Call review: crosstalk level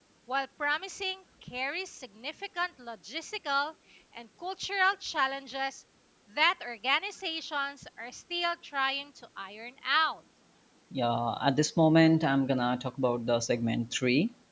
none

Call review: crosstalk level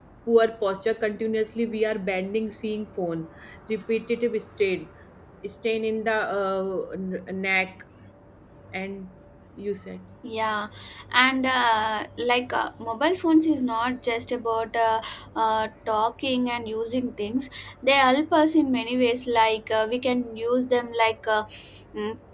none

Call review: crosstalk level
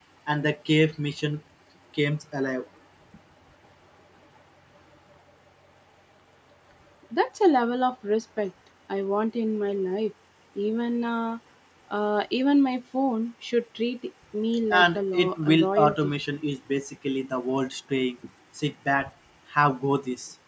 present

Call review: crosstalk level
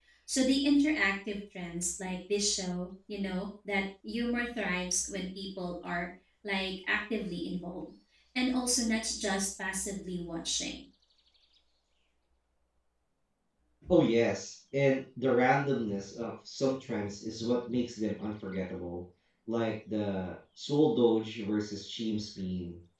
none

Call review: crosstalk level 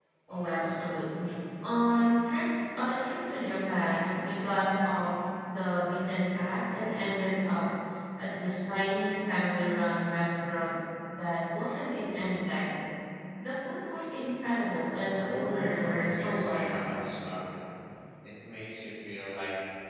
present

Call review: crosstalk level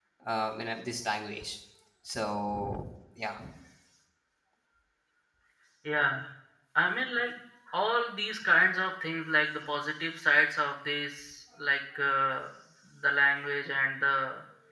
none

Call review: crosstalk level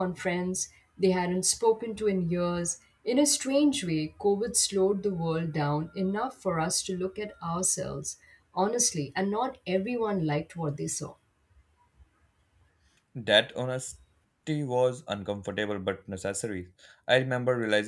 none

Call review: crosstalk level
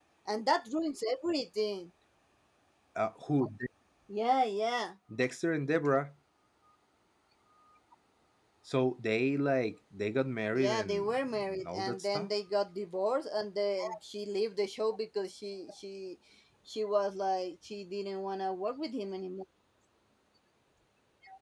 present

